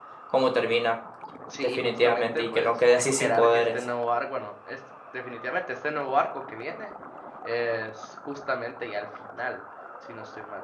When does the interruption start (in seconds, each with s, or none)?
1.8 s